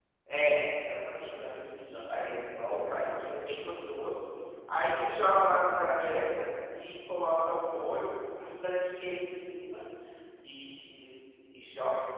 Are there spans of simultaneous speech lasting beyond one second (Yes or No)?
Yes